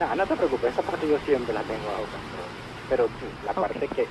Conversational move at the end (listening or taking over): listening